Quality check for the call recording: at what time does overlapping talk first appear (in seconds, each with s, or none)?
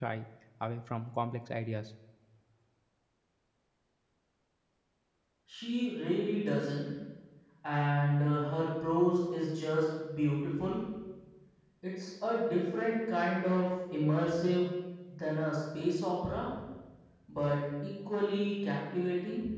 none